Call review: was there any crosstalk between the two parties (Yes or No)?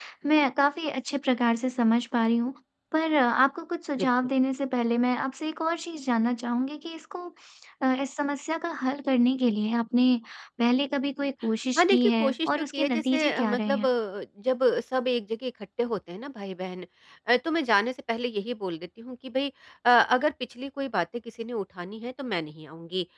Yes